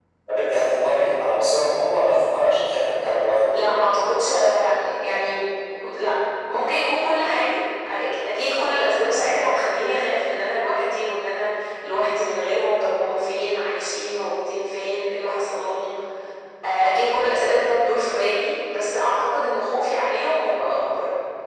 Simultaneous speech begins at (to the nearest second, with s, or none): none